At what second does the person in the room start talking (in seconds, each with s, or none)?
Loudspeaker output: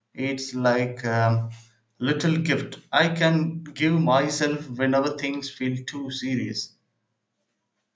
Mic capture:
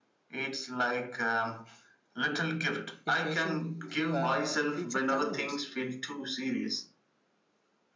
3.0 s